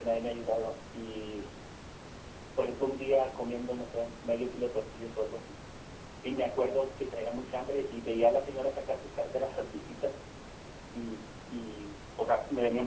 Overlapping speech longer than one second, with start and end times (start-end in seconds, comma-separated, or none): none